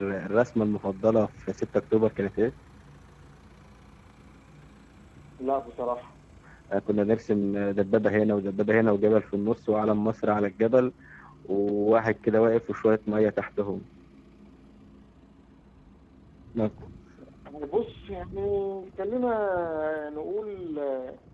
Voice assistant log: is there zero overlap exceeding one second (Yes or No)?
Yes